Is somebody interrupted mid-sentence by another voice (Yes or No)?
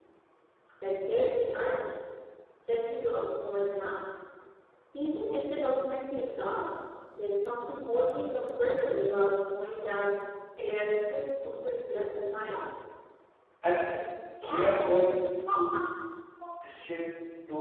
No